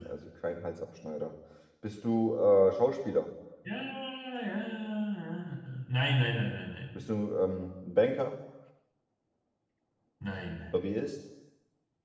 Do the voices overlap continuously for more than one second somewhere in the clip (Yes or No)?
No